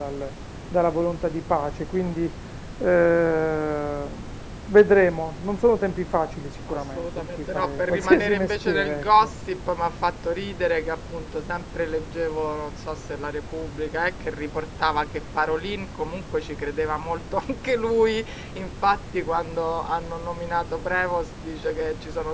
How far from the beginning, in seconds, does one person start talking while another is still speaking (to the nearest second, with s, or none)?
7 s